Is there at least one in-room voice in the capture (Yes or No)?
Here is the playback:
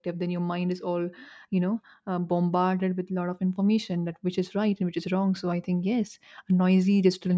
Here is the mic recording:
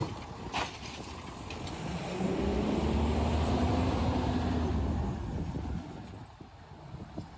No